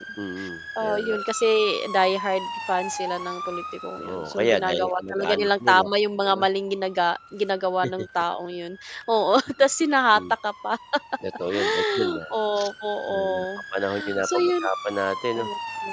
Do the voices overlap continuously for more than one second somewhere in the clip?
Yes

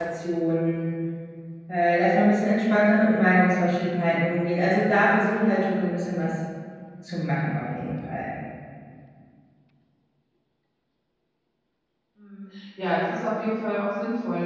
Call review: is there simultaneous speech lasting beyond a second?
No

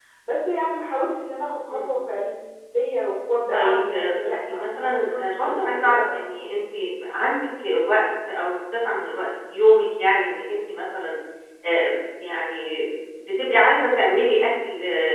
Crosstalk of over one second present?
Yes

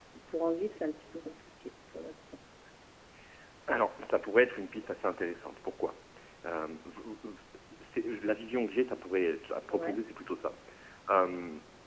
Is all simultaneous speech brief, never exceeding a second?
Yes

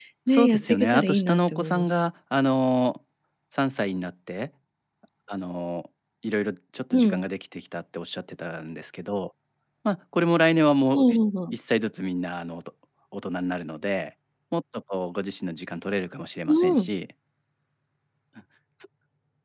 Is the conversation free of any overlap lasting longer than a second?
No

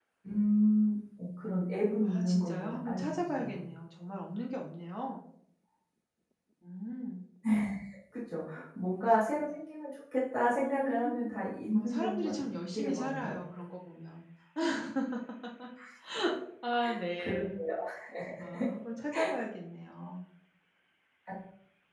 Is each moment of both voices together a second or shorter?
No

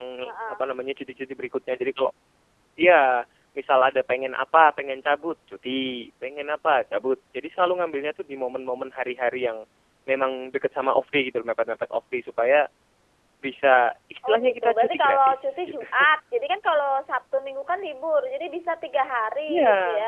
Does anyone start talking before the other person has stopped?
Yes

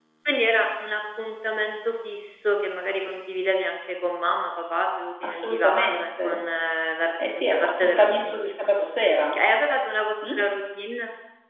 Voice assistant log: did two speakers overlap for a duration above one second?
Yes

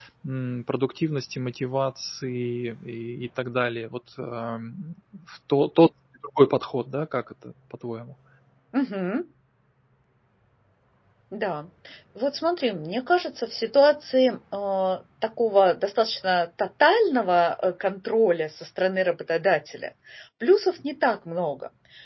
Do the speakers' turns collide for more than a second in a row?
No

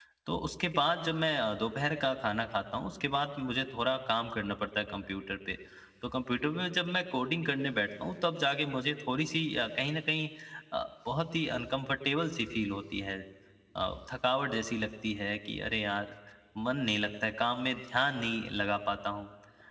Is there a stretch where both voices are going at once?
No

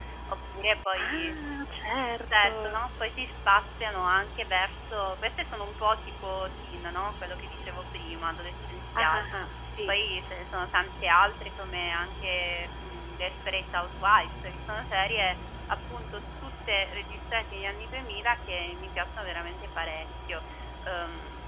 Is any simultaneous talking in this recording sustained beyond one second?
No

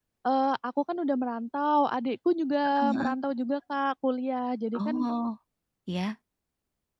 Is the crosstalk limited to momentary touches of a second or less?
Yes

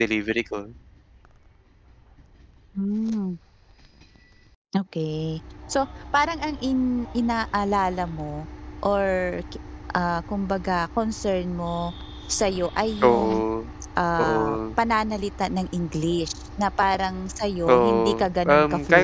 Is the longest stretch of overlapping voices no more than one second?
No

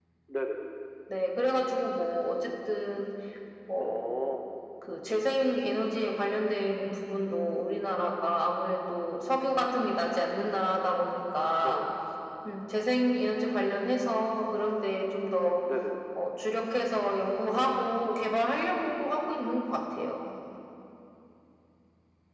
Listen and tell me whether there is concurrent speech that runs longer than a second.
No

